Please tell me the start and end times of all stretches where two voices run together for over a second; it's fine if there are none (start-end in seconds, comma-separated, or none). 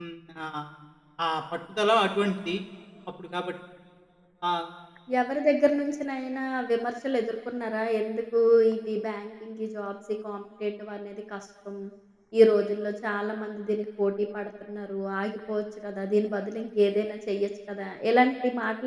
none